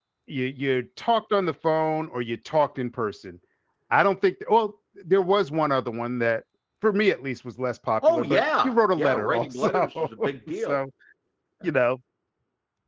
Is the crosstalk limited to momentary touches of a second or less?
No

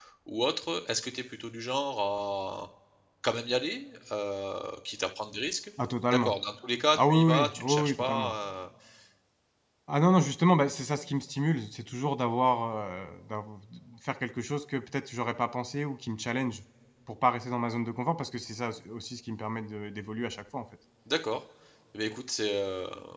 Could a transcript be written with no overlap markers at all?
No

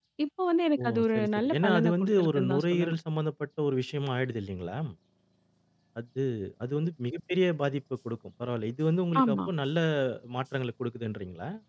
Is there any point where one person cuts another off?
Yes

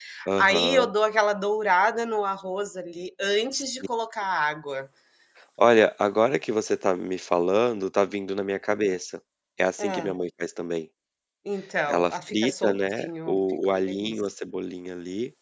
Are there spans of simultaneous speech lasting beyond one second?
Yes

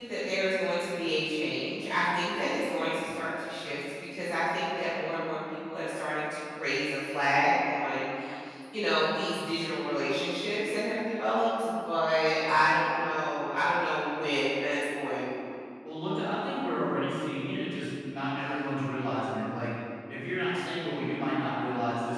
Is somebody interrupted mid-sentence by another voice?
No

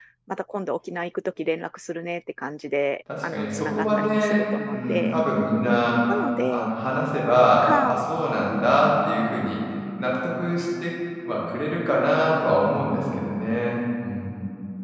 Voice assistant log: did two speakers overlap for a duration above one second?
Yes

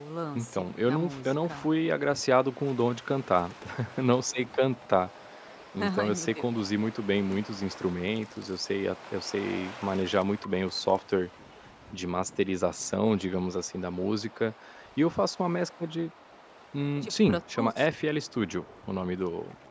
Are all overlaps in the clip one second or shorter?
No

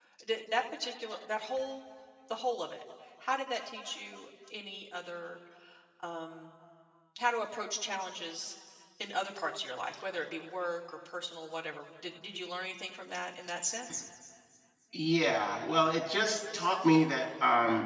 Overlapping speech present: No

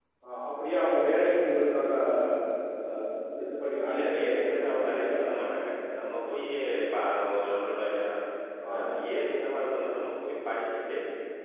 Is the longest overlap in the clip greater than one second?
Yes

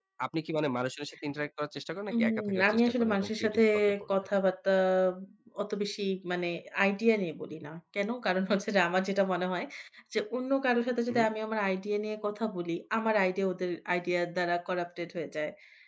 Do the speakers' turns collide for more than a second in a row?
Yes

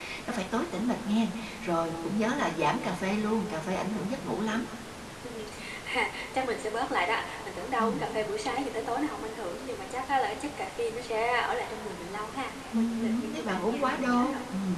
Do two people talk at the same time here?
Yes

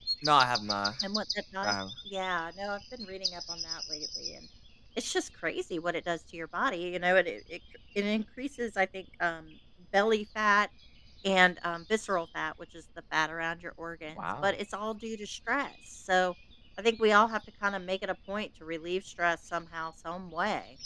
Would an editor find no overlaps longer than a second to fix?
Yes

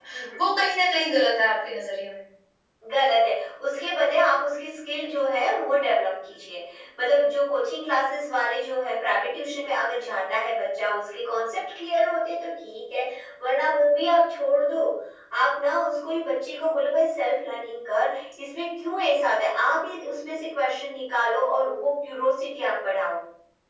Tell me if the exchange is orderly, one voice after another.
Yes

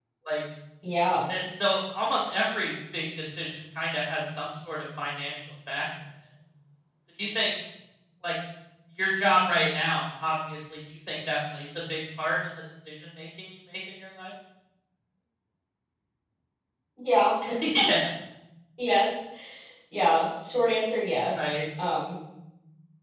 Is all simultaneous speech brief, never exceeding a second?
Yes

